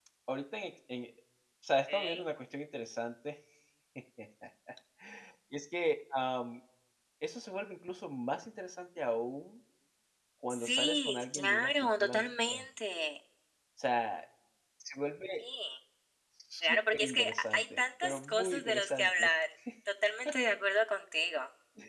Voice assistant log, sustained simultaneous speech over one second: present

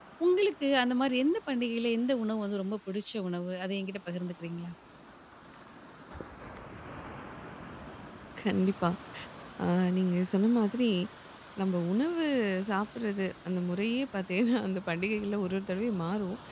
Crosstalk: none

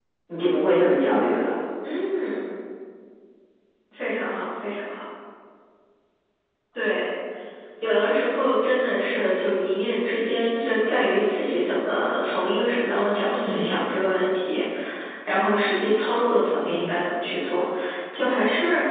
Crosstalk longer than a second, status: none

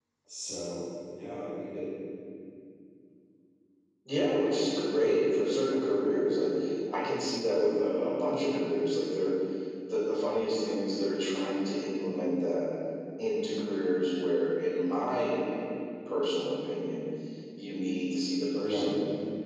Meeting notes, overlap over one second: none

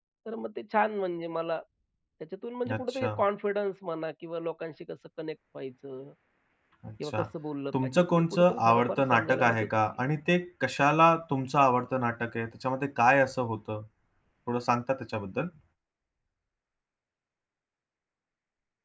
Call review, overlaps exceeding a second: present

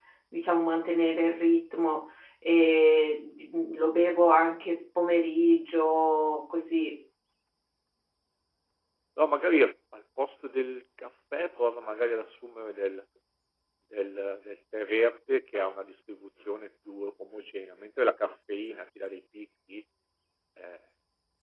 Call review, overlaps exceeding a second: none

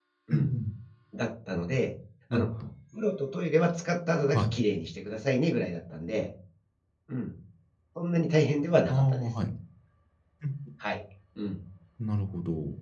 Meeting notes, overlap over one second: none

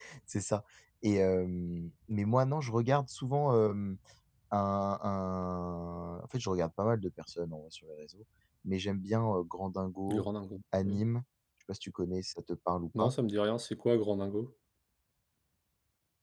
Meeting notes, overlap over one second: none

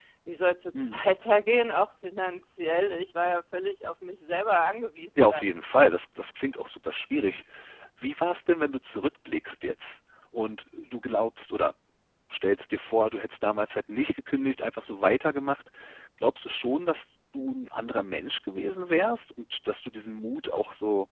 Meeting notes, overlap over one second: none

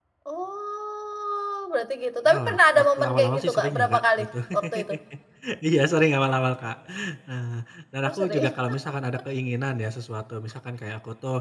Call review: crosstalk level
present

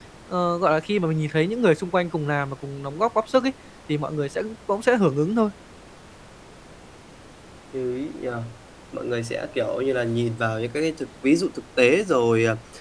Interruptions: none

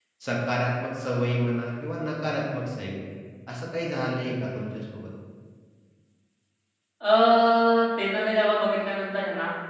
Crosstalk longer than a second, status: none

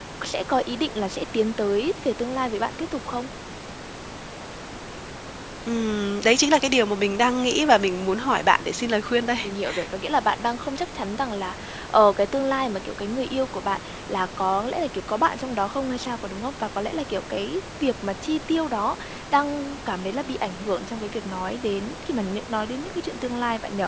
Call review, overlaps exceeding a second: none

